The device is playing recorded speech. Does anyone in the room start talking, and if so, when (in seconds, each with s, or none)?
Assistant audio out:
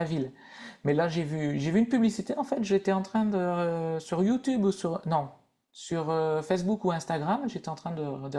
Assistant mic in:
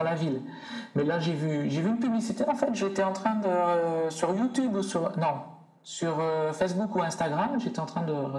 none